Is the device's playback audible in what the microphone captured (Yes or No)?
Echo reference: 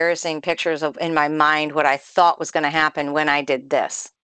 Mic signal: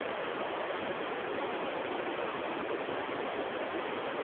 No